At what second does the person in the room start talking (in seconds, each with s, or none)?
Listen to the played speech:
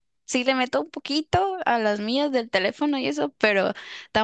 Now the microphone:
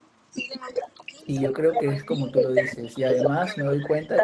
1.3 s